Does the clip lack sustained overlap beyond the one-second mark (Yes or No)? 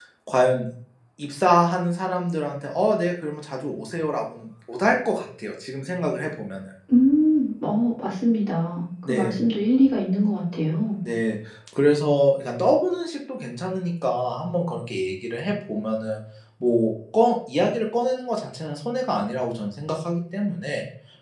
Yes